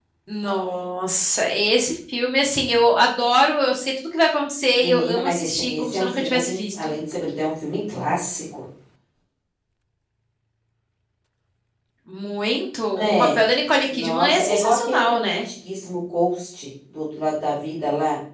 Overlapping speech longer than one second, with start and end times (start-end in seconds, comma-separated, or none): 4.8-7.0, 13.9-15.5